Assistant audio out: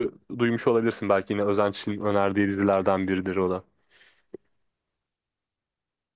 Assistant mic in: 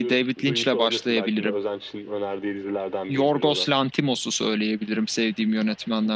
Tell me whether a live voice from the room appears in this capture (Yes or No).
Yes